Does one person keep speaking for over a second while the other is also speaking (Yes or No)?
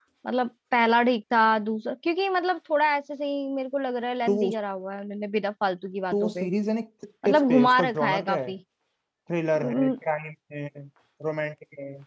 Yes